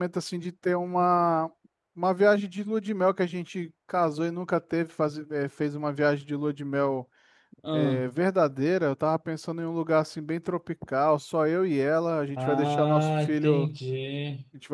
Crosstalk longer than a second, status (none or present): present